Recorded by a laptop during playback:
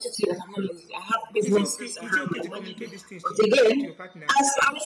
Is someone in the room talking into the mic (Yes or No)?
Yes